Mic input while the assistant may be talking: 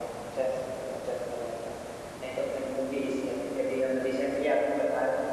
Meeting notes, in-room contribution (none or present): none